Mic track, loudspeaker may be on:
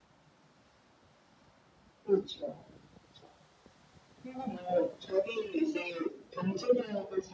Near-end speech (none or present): none